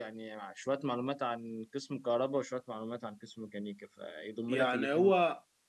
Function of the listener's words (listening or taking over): taking over